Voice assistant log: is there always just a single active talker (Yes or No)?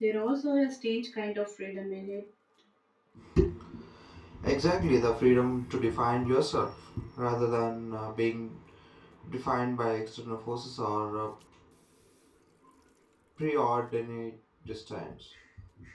Yes